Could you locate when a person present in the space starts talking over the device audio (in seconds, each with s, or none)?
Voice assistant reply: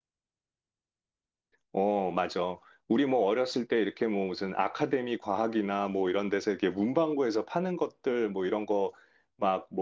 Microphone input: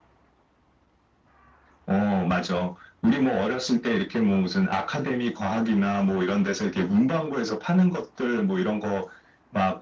none